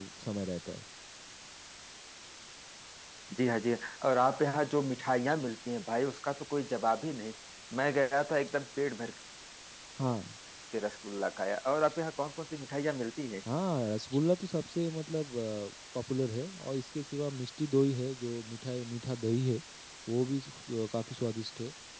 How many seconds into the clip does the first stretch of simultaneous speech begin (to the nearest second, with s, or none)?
none